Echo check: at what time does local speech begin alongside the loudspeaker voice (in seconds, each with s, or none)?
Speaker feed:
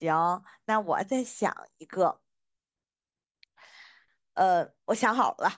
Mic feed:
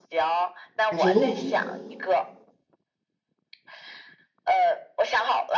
0.9 s